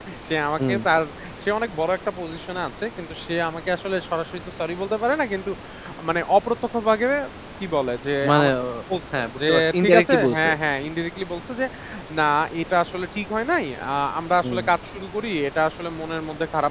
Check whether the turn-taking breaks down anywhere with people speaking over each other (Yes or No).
Yes